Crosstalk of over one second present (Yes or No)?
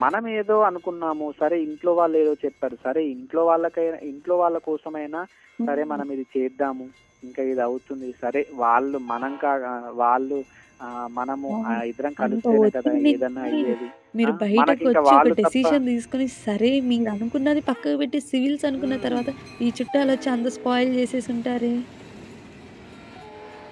Yes